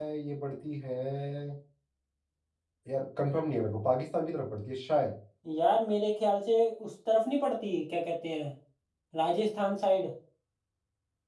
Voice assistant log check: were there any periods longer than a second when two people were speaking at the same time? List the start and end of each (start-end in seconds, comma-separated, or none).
none